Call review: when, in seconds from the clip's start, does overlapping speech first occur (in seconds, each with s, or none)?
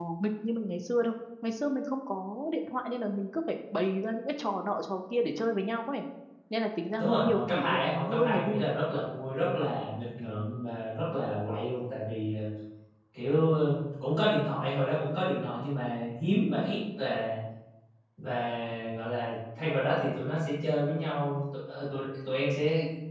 7.0 s